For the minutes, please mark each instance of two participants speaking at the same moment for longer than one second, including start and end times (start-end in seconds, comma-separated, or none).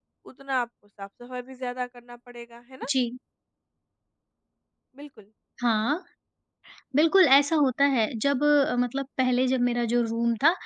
none